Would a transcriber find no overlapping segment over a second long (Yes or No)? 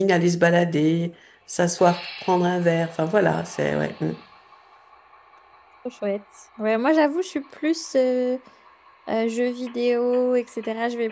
Yes